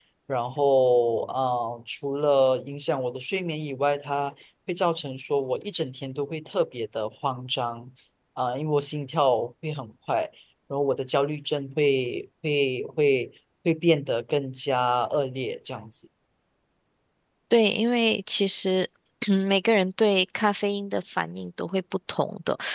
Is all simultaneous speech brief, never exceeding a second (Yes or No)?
Yes